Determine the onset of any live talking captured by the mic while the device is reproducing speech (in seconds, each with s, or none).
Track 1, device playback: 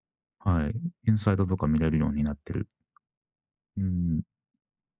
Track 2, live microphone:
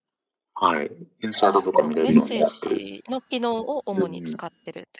1.4 s